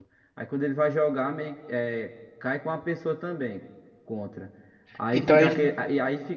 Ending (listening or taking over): listening